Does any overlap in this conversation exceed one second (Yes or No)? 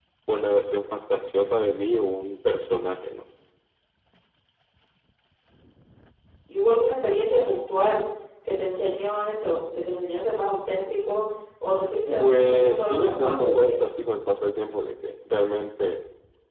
Yes